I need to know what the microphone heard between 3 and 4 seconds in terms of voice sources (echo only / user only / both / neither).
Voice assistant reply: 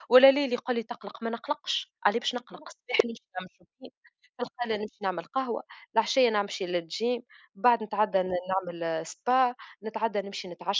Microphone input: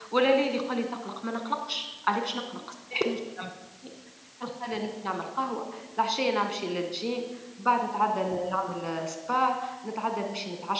echo only